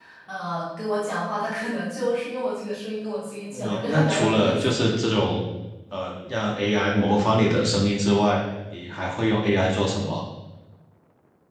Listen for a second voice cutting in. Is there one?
Yes, from 3.5 s

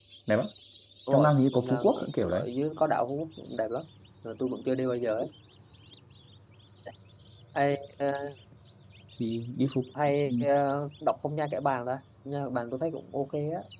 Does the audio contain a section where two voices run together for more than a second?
Yes, from 1.1 s

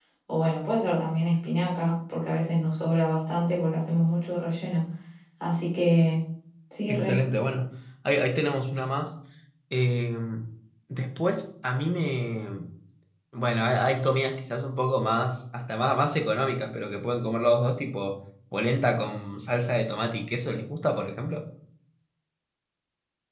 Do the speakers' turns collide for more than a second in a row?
No

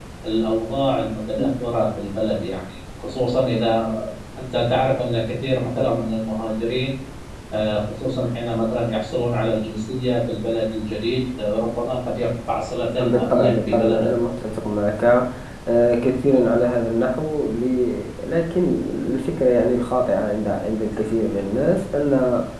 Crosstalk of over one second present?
Yes, from 13.0 s

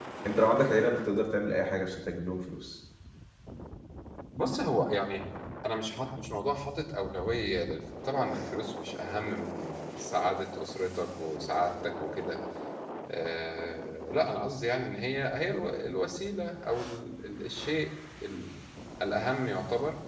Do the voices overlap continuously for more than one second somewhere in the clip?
No

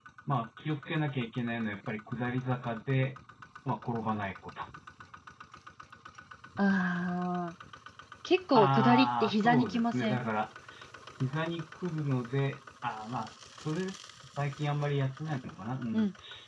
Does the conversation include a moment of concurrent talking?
Yes, from 8.5 s

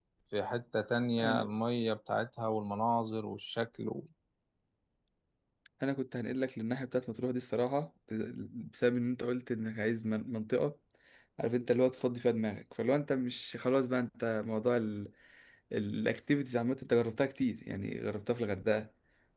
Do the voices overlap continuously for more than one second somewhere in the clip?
No

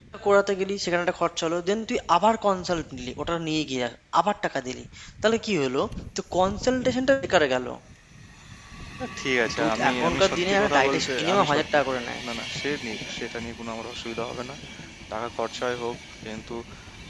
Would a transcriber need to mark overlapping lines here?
Yes, from 9.6 s

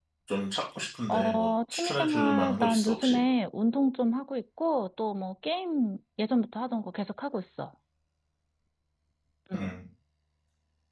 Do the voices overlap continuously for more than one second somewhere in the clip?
Yes, from 1.1 s

